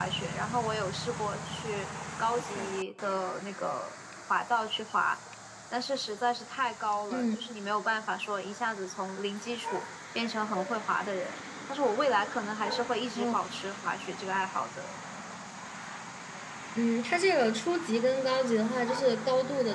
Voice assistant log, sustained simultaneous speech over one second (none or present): none